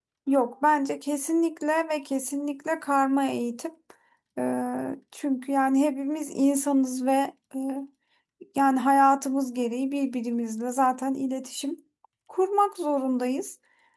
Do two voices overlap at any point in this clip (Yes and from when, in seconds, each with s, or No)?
No